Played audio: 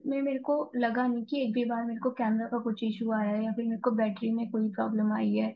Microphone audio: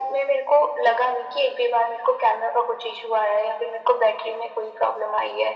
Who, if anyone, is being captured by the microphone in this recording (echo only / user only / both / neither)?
echo only